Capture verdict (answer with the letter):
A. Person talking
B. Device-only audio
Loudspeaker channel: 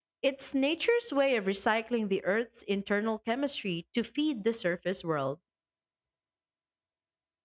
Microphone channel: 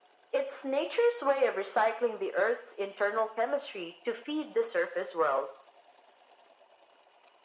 B